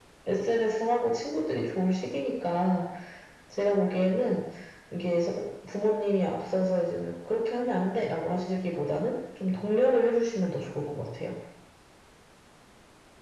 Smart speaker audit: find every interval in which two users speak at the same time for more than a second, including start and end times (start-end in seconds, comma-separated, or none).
none